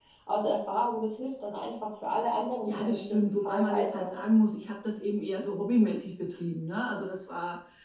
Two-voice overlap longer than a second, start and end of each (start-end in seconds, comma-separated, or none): 2.6-4.1